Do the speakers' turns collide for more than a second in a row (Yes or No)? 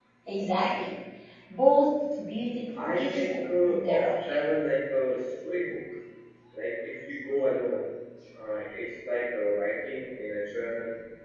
Yes